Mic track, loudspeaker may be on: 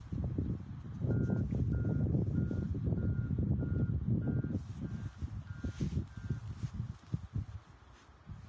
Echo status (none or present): none